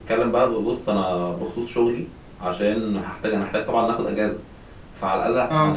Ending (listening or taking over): listening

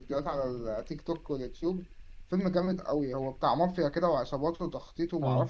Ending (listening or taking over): listening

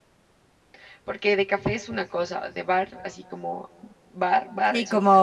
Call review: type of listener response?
taking over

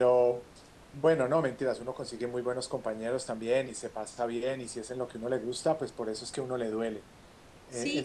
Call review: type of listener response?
taking over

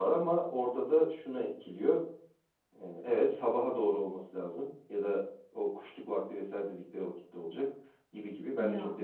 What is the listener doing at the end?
listening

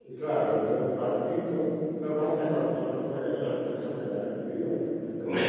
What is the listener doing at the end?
taking over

